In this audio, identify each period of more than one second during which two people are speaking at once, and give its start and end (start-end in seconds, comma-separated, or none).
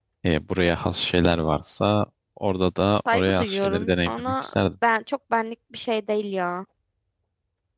3.1-4.5